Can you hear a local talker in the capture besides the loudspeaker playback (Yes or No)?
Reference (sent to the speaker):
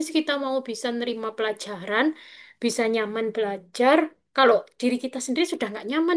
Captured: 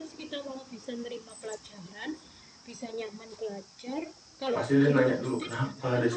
Yes